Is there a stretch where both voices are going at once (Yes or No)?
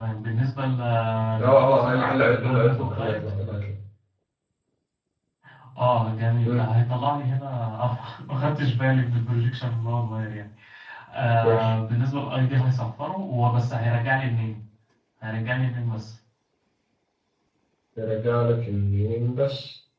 Yes